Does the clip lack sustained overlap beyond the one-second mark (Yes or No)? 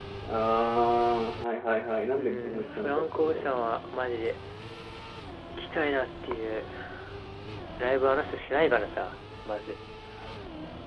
No